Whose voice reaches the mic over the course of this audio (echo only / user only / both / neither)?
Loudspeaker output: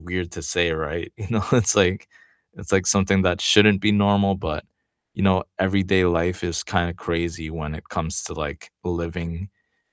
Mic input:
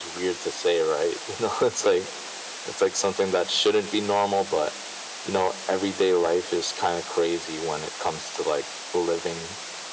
echo only